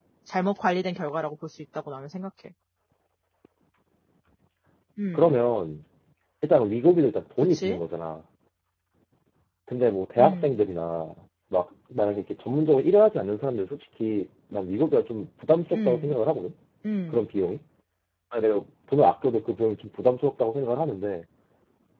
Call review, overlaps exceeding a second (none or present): none